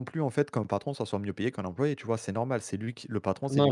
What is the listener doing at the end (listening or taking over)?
taking over